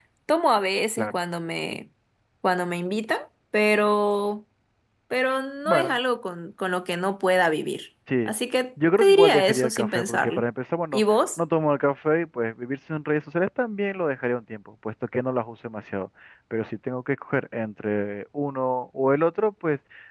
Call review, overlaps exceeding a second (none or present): present